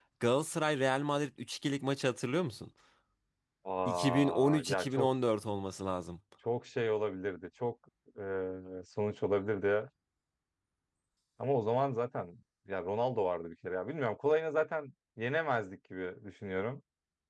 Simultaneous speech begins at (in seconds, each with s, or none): 3.9 s